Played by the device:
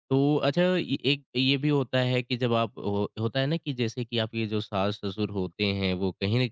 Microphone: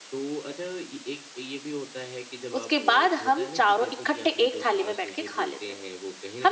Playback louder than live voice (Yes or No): No